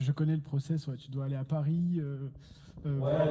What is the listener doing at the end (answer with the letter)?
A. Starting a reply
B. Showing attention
A